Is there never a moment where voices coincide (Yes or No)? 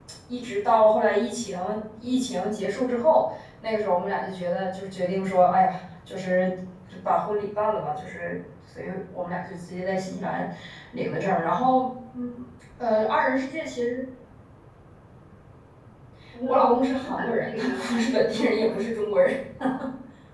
No